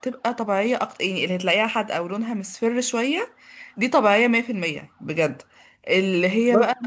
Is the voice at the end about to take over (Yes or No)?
No